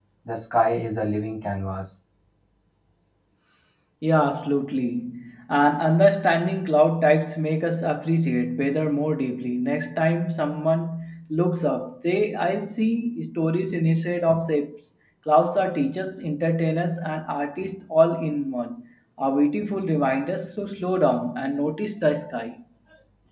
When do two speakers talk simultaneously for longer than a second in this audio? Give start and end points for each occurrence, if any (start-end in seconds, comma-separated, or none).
none